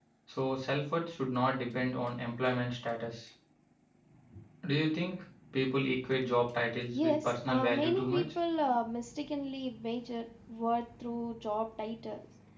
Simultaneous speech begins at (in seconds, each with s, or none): 7.0 s